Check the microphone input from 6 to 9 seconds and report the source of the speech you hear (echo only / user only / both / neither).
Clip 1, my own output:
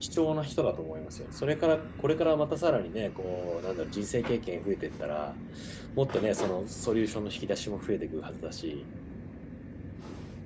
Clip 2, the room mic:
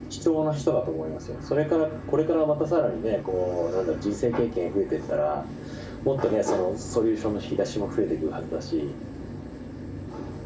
echo only